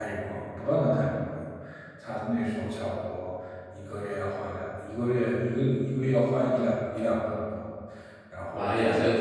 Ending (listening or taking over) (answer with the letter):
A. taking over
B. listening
A